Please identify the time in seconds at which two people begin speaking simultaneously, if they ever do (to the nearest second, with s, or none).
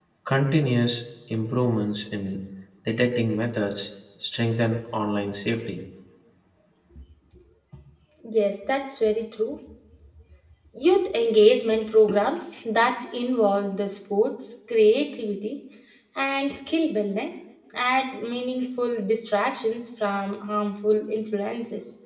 none